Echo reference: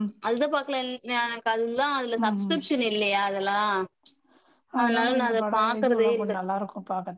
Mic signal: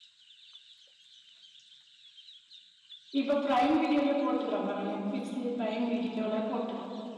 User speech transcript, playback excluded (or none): இப்ப ப்ரைம் வீடியோலயே போட்டுக்கிறான் பாருங்க நெட்பிளிக்ஸ் பிரைம் வீடியோல போட்டு